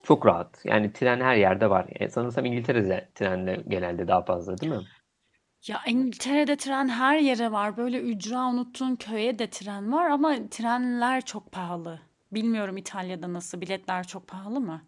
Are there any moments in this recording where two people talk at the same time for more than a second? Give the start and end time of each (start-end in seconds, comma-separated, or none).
none